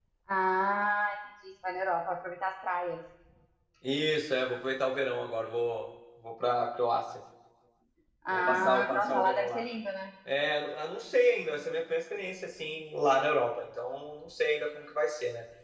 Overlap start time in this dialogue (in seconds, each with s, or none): 8.3 s